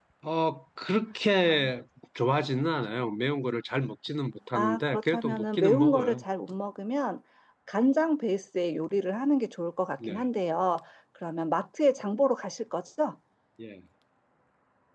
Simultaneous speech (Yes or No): Yes